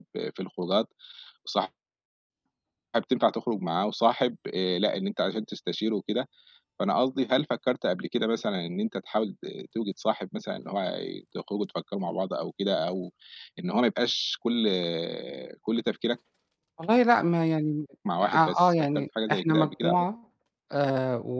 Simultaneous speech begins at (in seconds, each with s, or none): 18.1 s